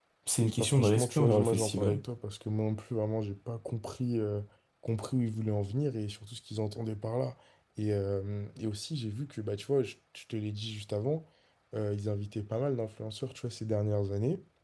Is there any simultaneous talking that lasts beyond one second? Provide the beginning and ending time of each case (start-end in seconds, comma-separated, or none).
0.6-2.0